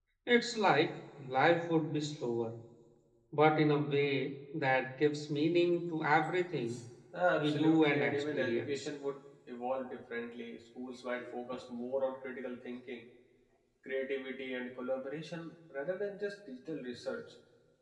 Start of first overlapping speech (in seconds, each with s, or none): 7.4 s